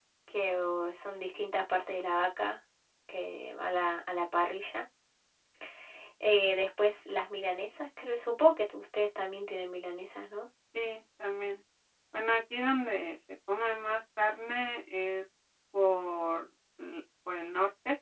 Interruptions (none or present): none